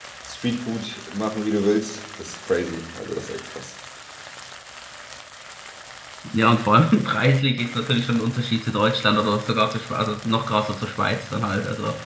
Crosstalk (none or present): none